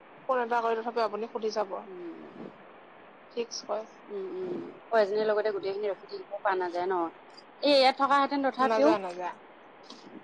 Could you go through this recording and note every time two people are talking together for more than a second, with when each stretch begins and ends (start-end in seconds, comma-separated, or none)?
none